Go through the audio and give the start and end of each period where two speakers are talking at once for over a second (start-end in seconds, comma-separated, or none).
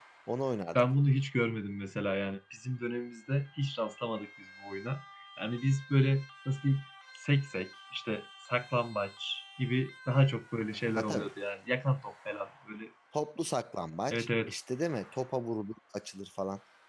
none